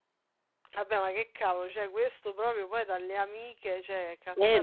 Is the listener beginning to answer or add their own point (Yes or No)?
Yes